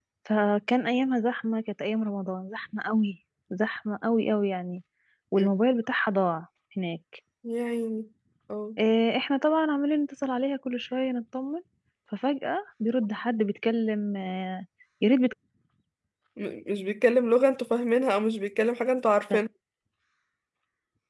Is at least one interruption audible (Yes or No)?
No